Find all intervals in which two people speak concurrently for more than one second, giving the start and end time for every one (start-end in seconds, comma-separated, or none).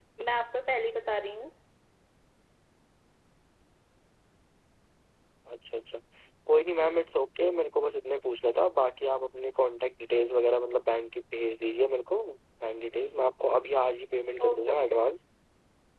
none